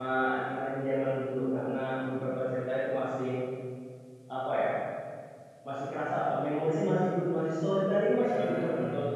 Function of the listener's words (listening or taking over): listening